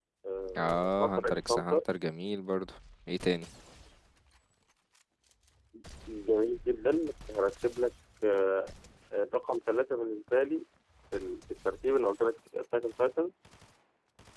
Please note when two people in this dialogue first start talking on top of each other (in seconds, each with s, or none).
0.6 s